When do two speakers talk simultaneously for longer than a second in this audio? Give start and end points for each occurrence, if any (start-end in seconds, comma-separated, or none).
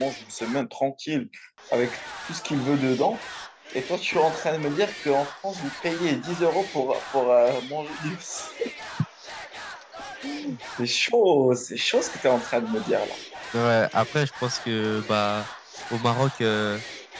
none